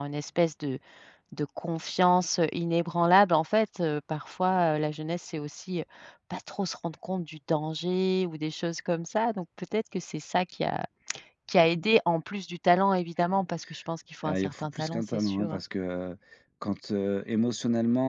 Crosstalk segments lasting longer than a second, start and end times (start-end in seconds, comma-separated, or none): 14.2-15.6